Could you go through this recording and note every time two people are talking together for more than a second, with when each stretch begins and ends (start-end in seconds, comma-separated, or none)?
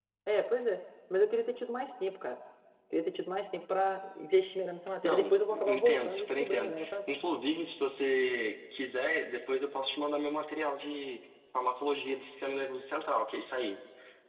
5.0-6.9